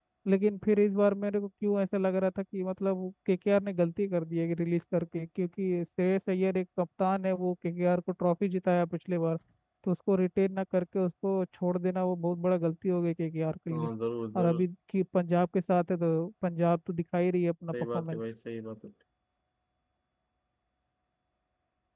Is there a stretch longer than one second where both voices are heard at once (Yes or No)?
No